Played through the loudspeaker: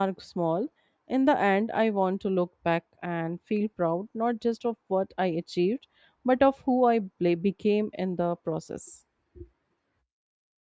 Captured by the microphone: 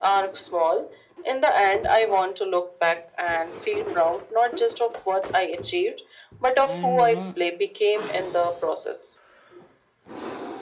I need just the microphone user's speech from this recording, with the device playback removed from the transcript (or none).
And you know,